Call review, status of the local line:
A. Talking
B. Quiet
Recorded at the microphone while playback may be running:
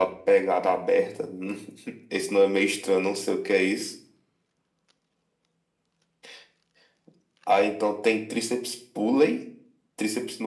B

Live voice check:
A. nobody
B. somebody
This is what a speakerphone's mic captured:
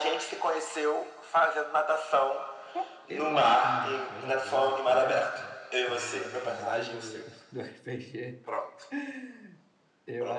B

